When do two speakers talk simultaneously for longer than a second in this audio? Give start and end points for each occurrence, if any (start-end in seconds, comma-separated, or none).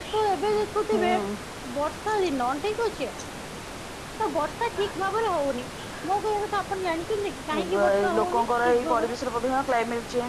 7.6-9.1